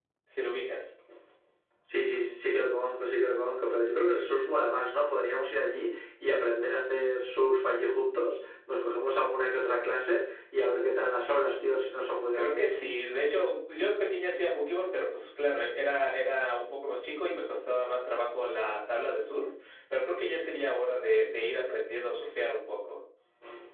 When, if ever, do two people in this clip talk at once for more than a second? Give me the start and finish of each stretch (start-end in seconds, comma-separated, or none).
none